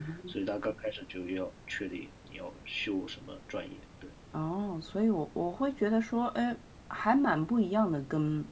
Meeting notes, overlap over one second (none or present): none